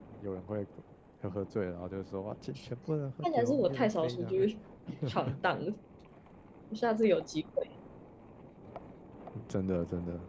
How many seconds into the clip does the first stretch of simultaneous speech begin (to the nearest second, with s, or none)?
3 s